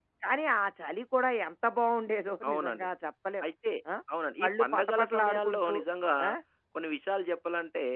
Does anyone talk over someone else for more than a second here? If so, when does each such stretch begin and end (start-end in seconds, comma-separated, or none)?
4.4-5.8